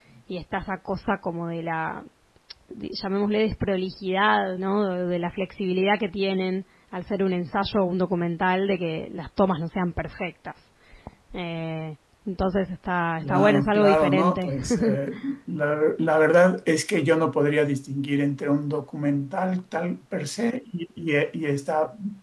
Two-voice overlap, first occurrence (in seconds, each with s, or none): 13.2 s